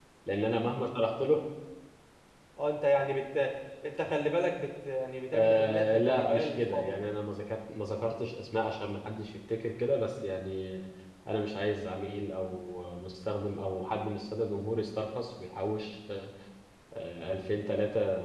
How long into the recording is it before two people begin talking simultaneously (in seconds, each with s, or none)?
5.3 s